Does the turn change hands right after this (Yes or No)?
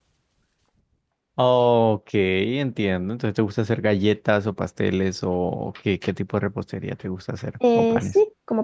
Yes